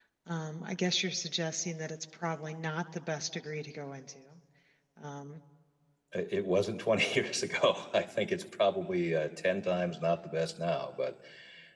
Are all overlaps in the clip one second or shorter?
Yes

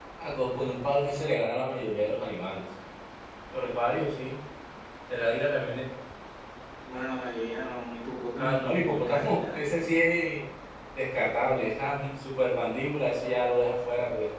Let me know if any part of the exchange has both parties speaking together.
Yes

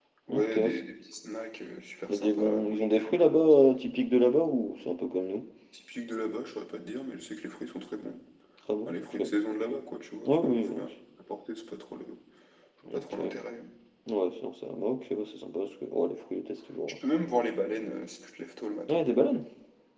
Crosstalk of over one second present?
Yes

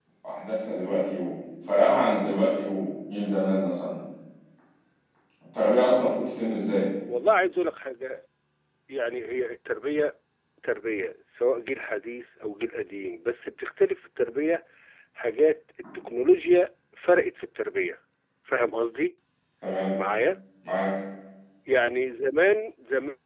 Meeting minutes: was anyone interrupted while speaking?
No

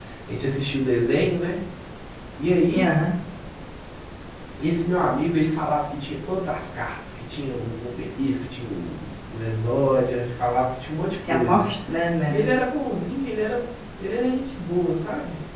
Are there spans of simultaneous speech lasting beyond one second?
No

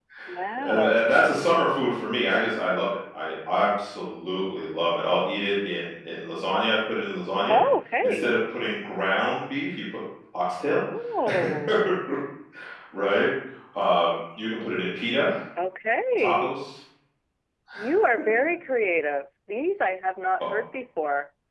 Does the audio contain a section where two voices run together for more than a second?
No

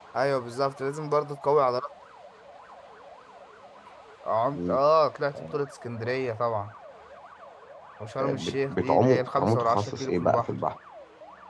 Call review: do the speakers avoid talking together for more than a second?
No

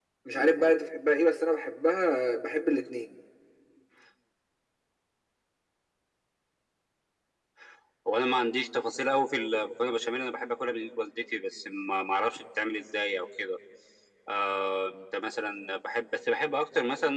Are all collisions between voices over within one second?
Yes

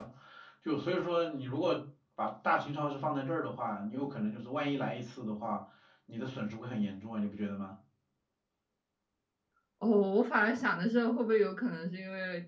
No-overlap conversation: Yes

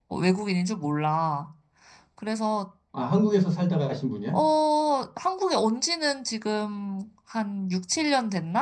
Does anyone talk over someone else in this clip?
No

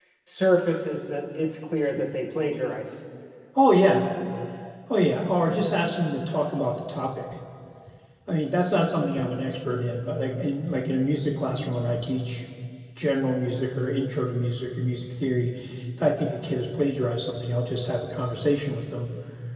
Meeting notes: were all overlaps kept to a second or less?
Yes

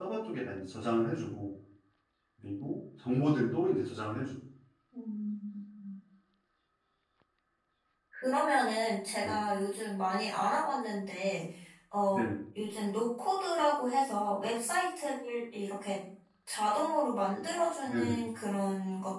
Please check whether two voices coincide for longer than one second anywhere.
No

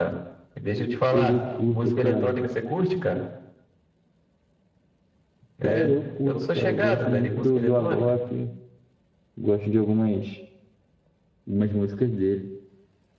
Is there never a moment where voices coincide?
No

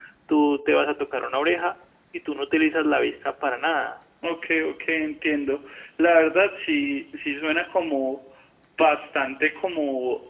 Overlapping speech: No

